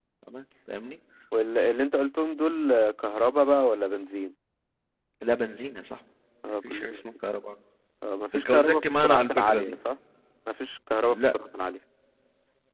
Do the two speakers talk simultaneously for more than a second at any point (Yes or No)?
Yes